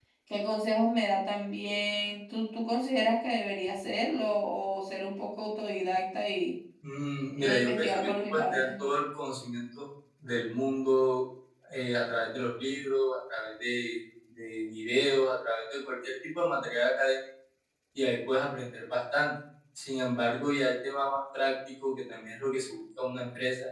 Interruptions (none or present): present